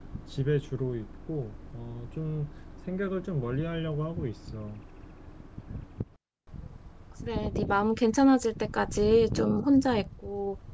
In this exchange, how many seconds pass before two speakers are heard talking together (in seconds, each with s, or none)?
none